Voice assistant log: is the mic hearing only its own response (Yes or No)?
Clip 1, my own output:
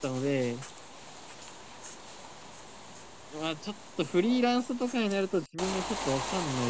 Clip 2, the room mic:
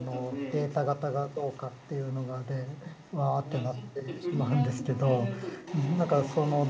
No